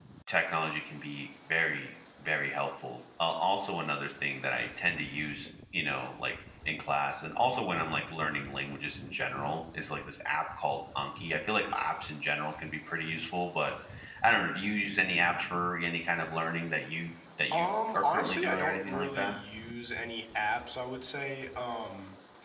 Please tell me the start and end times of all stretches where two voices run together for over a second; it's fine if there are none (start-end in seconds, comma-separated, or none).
17.5-19.4